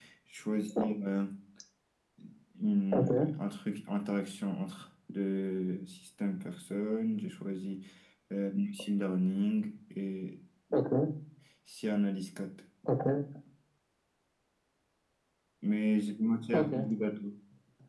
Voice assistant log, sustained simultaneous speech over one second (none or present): none